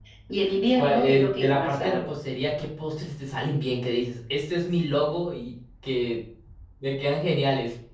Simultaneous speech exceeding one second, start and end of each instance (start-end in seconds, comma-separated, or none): 0.8-2.1